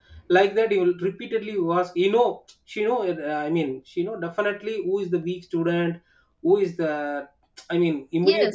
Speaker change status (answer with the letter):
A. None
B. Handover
B